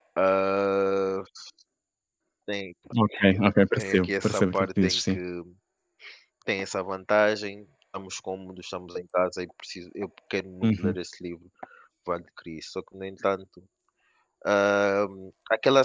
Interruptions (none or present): present